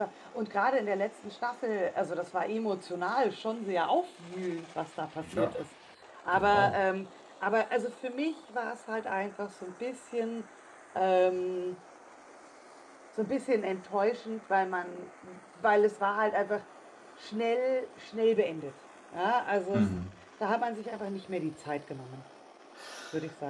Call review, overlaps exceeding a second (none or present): none